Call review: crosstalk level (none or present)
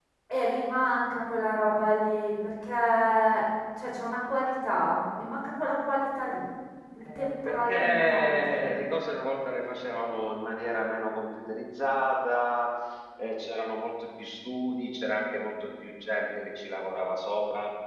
present